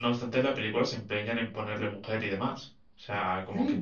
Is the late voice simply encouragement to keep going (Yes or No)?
No